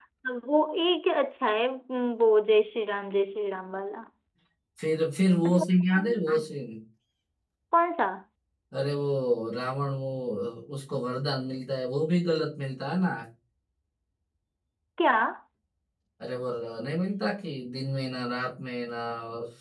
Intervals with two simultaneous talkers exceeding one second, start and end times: none

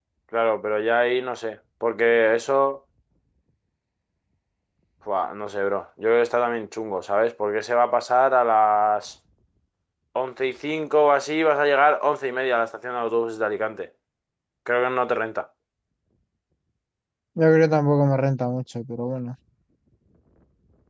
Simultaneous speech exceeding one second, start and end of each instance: none

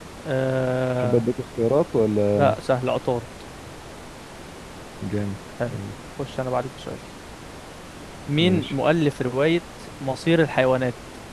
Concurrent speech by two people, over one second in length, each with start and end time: none

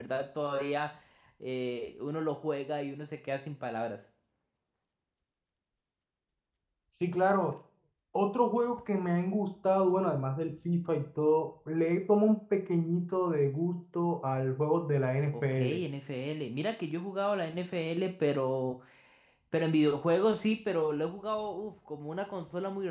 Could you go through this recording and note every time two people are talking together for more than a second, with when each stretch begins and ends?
none

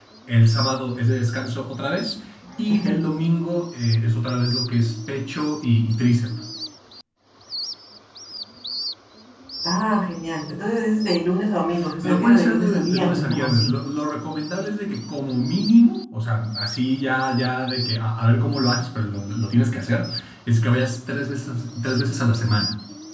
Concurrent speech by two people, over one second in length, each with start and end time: 12.0-13.7

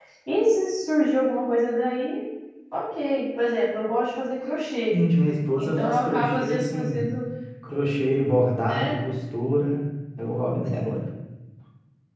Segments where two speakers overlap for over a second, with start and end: 5.6-7.0

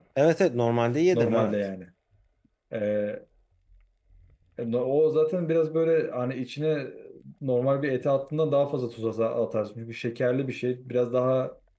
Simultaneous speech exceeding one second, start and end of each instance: none

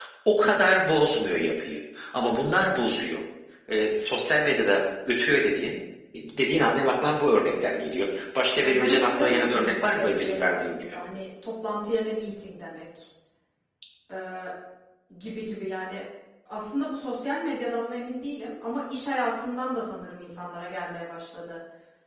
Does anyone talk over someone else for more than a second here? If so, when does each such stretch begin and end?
8.6-11.0

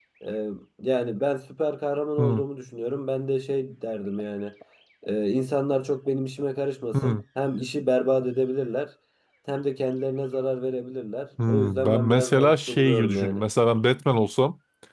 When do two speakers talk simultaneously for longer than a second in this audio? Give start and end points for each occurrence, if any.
11.5-13.4

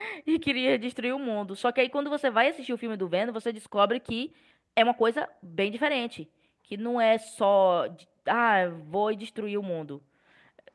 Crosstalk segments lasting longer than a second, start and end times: none

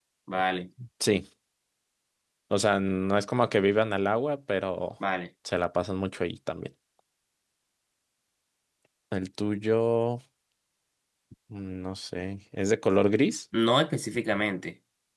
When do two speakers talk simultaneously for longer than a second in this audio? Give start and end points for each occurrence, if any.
none

